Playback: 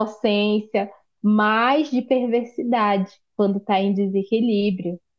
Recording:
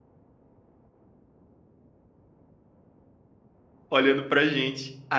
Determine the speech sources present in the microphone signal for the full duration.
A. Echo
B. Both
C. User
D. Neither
C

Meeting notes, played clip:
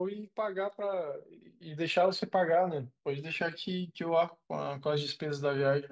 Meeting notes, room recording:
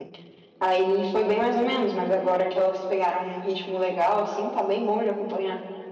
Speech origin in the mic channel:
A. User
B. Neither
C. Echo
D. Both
A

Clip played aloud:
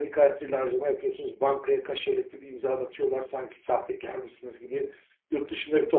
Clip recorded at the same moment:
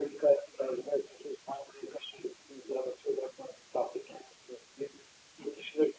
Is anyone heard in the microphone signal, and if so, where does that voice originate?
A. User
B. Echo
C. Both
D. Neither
B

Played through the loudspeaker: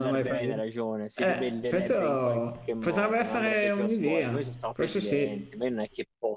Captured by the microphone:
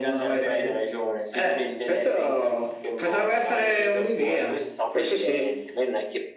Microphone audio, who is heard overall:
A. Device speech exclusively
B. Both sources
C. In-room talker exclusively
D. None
A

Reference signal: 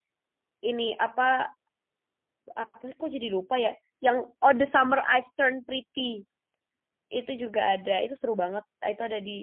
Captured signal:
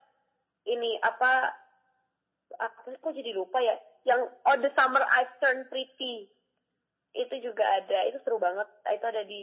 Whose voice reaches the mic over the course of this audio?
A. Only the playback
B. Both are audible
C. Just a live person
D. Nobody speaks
A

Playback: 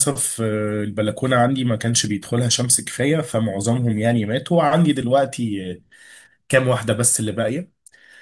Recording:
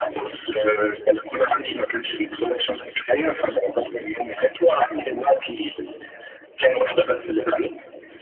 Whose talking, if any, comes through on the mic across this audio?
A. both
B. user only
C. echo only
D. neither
C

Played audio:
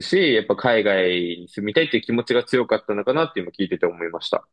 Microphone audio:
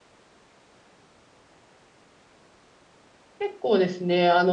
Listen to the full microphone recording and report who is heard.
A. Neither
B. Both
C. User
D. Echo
C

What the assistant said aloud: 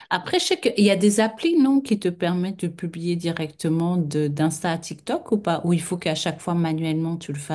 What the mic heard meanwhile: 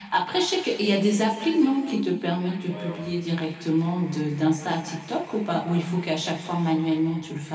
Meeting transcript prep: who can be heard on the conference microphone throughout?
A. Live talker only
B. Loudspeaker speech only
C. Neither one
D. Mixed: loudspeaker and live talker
D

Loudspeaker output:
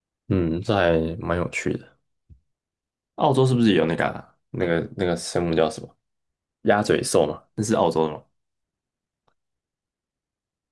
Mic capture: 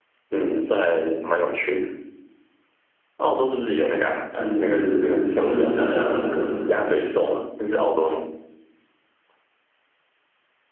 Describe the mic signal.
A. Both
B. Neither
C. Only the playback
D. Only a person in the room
A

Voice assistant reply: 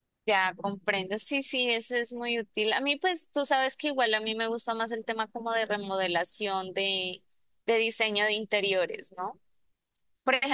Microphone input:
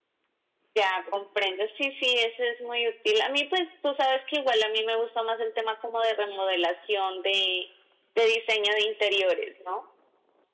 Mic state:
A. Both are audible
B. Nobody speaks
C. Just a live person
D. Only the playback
D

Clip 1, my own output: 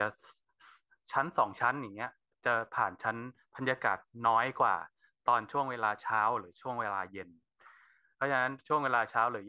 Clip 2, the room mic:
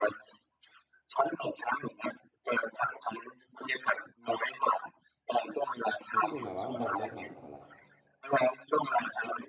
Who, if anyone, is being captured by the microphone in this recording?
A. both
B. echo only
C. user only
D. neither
A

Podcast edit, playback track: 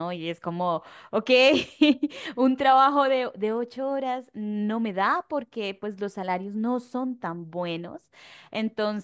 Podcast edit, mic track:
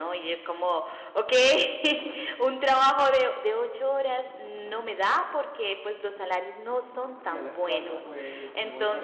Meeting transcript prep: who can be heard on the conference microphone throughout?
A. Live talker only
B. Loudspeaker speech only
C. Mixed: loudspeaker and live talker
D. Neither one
C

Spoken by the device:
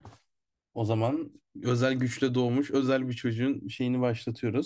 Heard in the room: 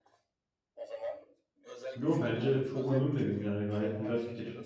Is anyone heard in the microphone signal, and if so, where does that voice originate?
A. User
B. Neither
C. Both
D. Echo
C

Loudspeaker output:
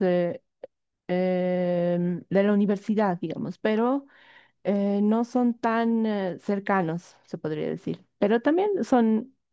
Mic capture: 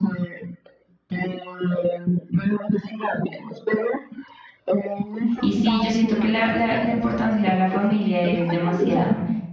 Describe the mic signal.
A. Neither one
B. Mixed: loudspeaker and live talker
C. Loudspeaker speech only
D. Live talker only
B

